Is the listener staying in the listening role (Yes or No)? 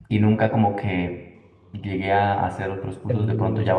Yes